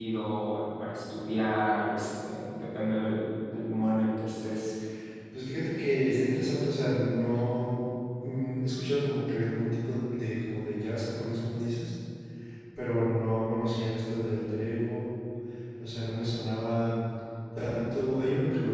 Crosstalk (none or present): none